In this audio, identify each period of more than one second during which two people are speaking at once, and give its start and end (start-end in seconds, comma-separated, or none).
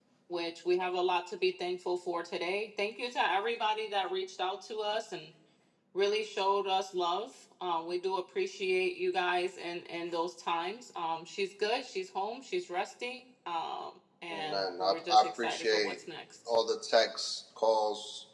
14.3-15.9